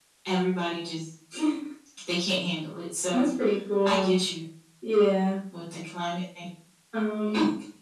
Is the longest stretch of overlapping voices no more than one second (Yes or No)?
Yes